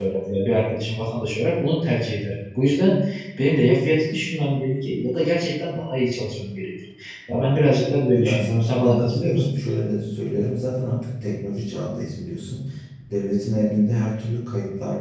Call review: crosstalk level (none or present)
present